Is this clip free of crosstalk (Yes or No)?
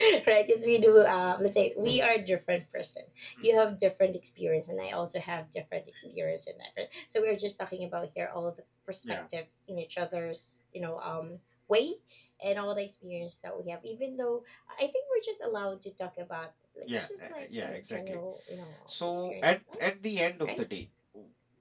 No